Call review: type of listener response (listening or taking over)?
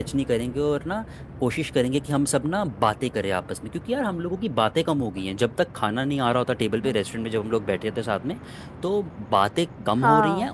listening